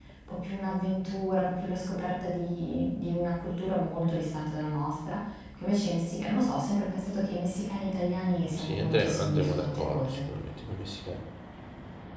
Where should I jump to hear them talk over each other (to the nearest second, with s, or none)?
9 s